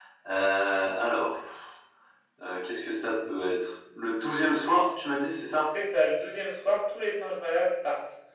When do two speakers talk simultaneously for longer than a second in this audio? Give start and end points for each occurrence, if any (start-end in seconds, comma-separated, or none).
none